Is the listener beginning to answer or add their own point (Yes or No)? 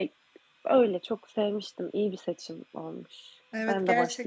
Yes